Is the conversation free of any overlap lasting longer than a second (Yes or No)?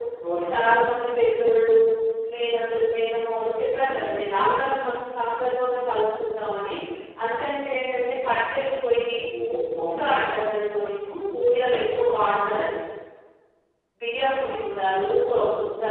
Yes